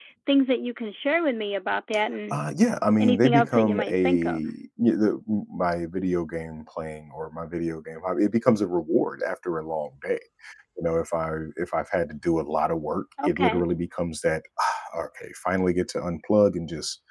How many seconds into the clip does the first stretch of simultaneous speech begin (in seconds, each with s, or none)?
3.0 s